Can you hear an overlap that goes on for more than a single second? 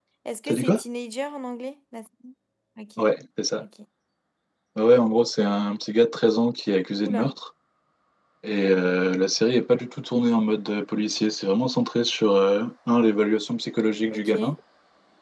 No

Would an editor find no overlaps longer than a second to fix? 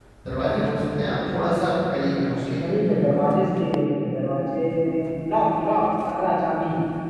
Yes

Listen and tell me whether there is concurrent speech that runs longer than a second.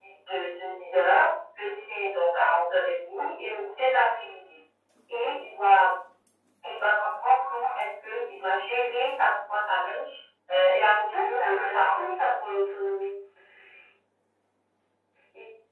Yes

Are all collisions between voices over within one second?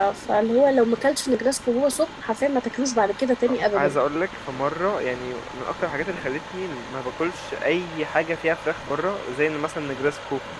Yes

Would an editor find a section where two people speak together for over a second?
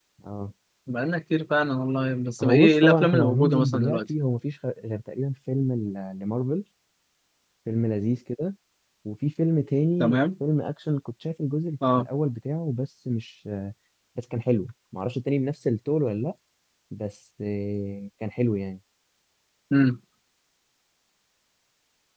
Yes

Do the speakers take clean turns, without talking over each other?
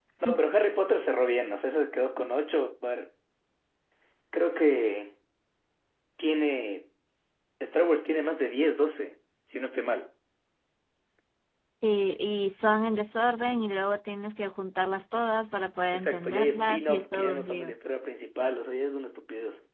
No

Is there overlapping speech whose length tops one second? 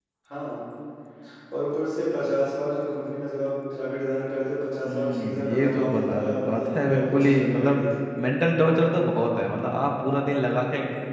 Yes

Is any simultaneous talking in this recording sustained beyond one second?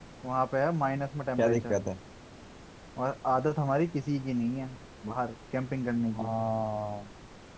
No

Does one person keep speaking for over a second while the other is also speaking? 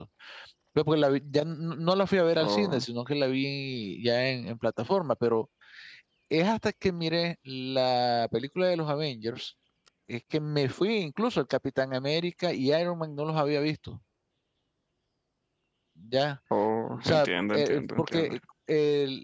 Yes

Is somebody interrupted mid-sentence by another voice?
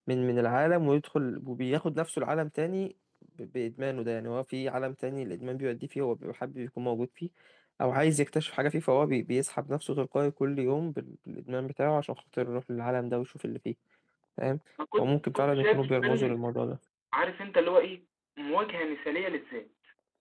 Yes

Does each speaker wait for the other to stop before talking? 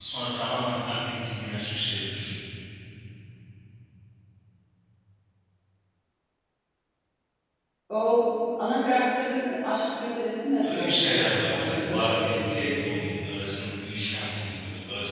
No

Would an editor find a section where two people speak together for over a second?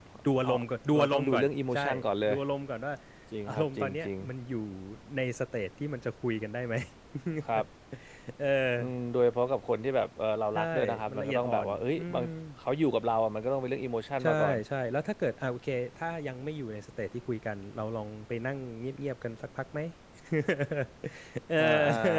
Yes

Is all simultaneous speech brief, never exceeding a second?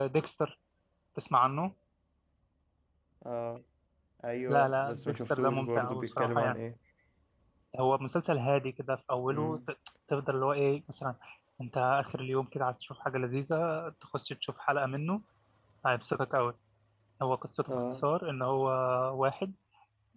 No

